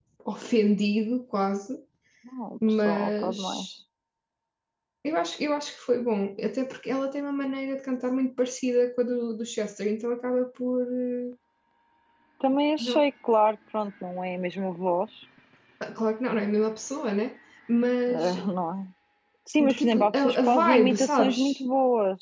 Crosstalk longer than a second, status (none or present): present